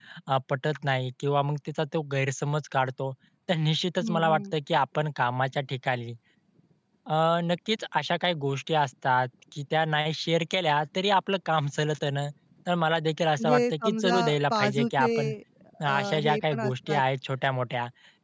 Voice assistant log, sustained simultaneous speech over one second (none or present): present